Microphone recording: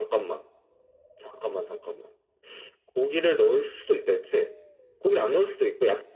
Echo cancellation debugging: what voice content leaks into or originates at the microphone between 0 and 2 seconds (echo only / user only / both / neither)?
echo only